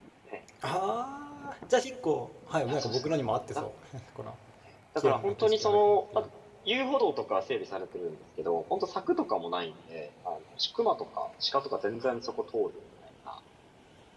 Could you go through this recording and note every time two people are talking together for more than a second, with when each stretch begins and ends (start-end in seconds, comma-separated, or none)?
5.0-6.2